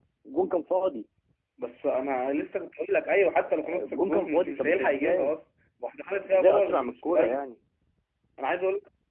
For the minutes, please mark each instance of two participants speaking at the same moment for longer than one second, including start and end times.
3.5-5.3, 6.2-7.5

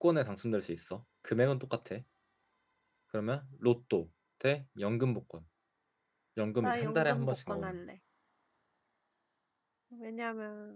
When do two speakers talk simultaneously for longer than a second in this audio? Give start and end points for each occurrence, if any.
6.6-7.8

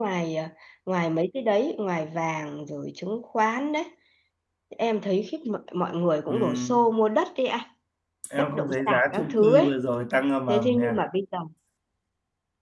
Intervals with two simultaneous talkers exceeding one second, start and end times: 8.4-9.8

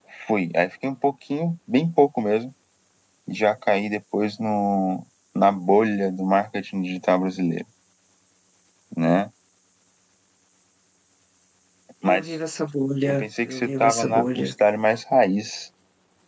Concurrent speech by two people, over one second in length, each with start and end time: 13.1-14.5

